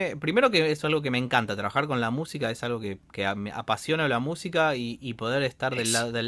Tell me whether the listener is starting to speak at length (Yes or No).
No